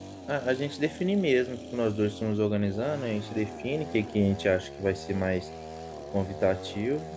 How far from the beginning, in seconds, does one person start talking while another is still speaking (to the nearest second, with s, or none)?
none